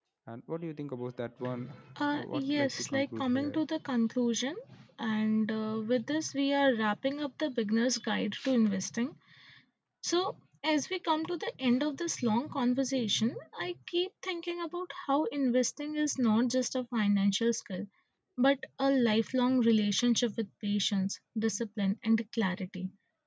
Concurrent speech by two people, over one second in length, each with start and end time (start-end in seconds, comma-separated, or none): 2.1-3.6